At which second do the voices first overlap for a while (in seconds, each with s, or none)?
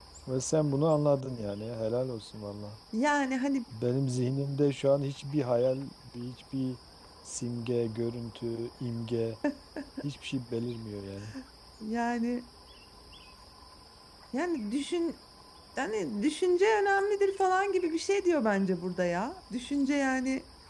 none